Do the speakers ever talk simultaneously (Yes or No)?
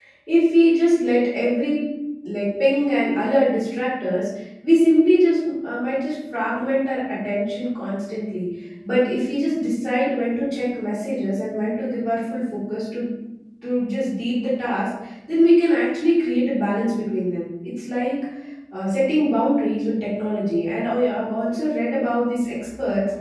No